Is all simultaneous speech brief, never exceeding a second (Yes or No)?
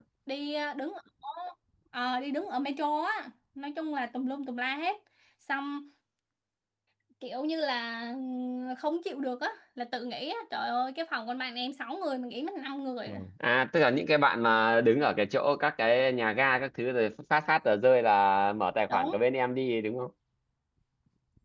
Yes